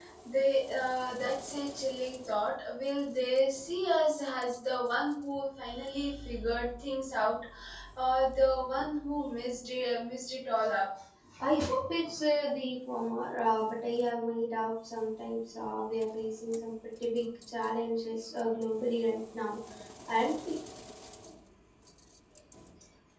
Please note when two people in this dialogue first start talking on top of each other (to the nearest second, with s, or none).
none